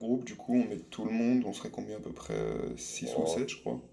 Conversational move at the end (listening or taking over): taking over